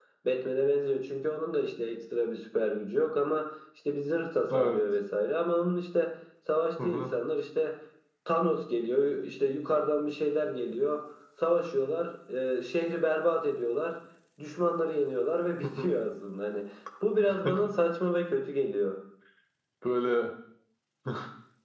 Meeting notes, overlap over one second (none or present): none